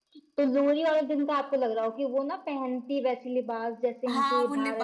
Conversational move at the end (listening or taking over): taking over